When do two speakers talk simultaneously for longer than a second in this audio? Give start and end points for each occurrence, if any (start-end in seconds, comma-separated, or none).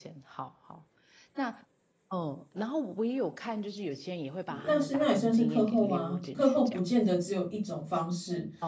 4.6-7.0